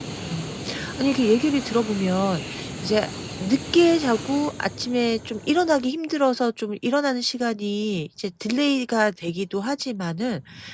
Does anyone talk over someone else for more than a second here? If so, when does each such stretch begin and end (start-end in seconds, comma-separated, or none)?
none